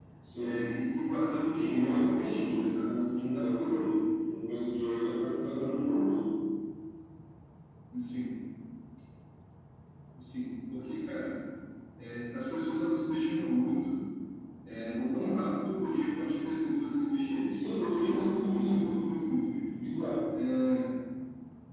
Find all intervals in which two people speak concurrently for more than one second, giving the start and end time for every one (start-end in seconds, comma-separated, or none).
1.6-4.0, 17.5-19.1